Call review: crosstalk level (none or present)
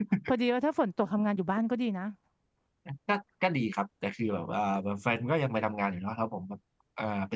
none